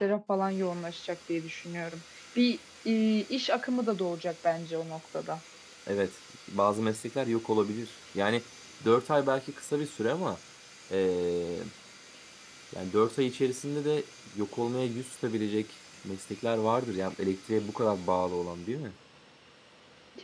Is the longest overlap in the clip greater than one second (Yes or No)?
No